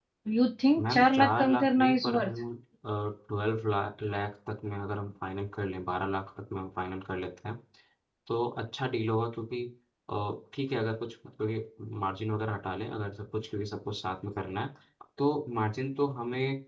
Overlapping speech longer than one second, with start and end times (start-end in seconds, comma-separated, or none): 0.9-2.3